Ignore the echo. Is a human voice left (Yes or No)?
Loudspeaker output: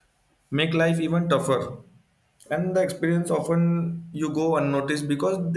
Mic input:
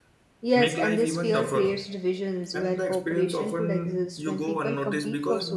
Yes